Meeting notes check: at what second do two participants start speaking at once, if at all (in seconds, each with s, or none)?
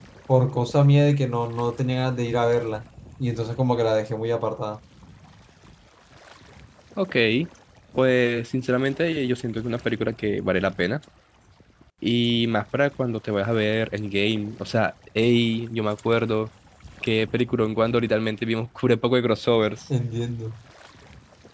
none